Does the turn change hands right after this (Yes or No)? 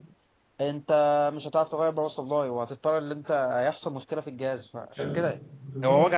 No